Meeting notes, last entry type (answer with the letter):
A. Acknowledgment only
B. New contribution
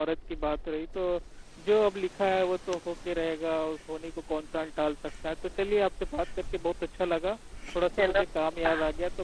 A